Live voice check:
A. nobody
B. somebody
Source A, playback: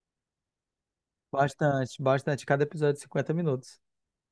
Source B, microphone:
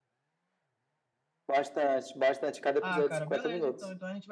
B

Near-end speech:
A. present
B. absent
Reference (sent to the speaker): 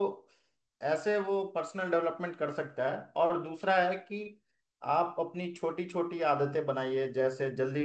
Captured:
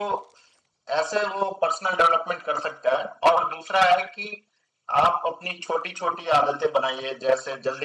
B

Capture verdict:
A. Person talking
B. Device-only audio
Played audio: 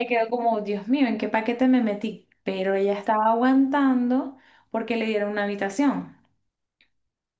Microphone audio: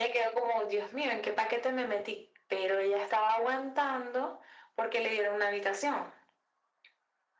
B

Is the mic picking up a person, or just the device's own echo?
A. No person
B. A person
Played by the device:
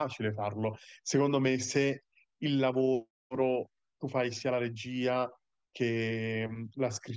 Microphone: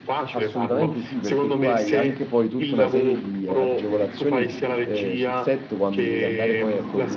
B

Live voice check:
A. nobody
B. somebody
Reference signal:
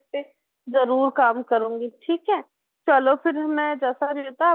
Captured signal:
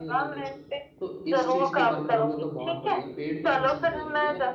B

